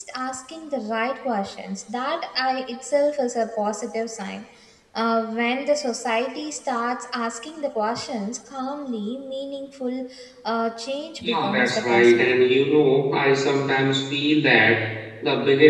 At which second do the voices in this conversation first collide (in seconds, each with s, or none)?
11.2 s